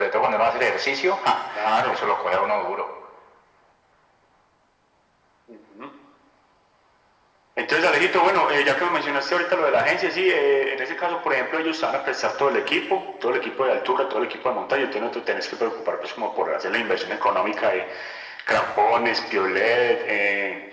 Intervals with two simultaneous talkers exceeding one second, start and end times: none

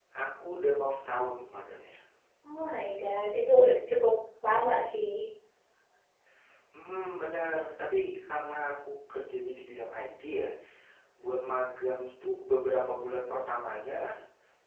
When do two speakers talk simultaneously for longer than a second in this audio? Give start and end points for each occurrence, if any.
none

